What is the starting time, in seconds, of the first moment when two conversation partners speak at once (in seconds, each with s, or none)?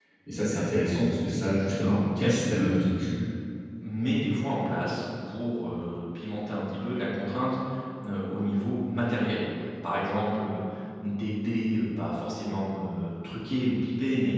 1.7 s